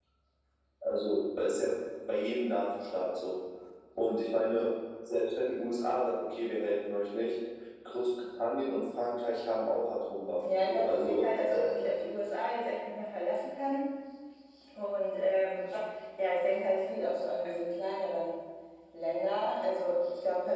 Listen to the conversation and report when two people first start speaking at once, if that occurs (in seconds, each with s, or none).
10.4 s